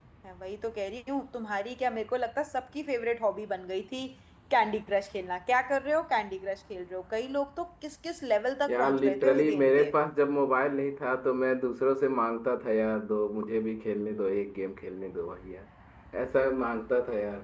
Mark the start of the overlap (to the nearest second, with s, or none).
9 s